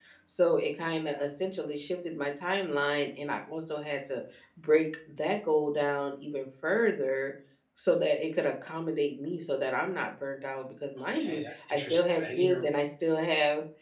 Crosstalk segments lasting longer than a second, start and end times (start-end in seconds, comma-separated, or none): 11.2-12.6